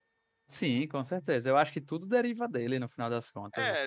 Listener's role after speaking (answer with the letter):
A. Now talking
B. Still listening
A